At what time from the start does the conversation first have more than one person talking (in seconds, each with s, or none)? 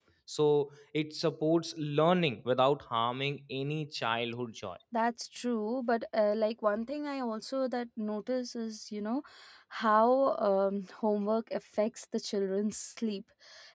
none